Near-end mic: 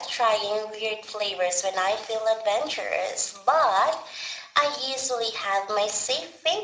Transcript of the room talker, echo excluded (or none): none